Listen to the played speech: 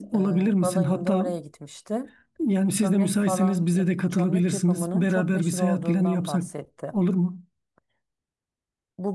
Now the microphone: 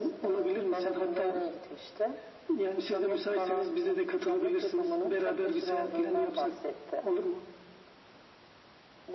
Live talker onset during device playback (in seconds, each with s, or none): none